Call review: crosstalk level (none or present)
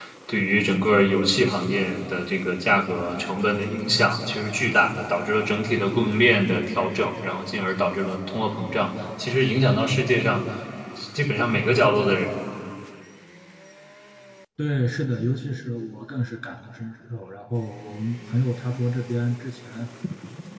none